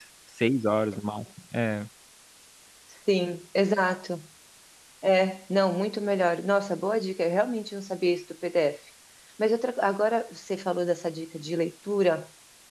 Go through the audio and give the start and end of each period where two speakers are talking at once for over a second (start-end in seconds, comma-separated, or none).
none